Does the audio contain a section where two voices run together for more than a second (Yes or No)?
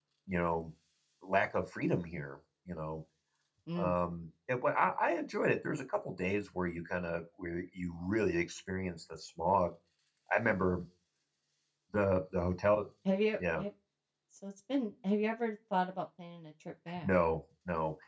No